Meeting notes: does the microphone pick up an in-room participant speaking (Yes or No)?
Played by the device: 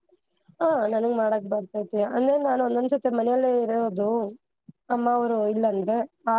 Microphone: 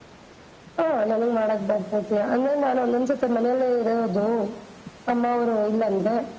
No